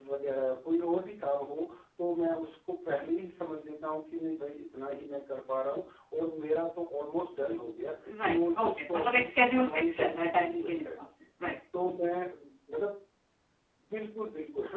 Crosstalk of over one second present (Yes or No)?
Yes